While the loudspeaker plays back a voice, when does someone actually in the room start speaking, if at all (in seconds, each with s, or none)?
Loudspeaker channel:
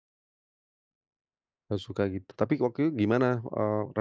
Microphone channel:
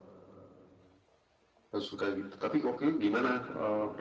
none